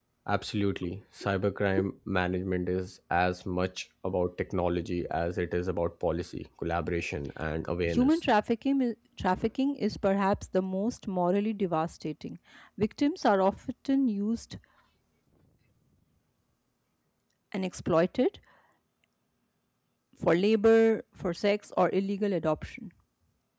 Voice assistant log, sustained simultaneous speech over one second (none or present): none